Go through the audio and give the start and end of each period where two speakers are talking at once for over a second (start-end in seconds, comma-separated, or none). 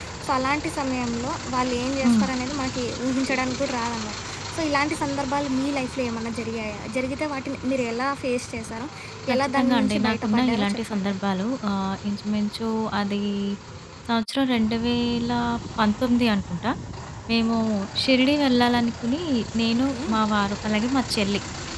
9.3-11.1